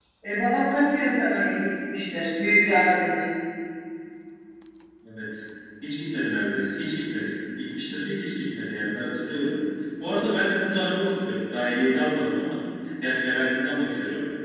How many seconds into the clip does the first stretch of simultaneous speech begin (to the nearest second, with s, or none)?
none